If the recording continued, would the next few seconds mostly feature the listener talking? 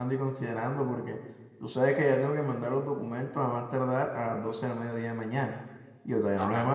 No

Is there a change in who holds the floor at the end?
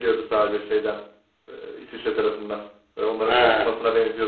No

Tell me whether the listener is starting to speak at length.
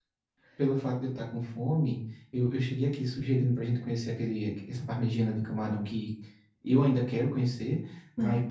No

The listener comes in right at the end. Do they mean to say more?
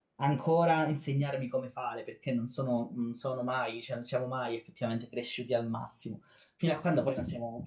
No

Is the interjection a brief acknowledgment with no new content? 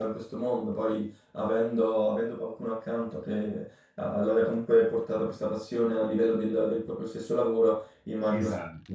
No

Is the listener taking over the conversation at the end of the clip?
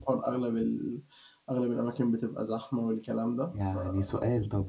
Yes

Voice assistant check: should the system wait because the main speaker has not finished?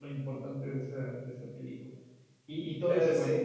Yes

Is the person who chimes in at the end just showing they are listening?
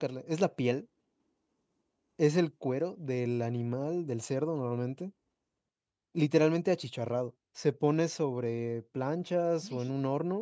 Yes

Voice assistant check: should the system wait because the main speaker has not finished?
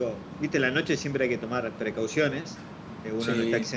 Yes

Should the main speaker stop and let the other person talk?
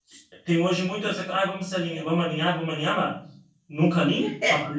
Yes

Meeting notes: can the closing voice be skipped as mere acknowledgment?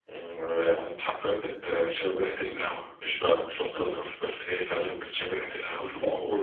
No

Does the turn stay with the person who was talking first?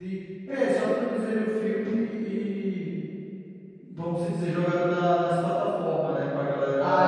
No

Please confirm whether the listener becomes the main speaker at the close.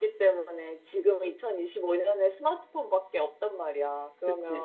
No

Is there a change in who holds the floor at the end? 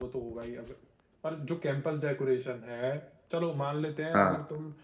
No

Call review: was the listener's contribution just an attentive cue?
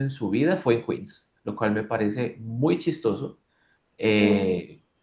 Yes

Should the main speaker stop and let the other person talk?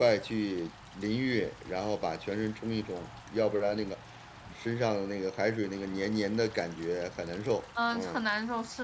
Yes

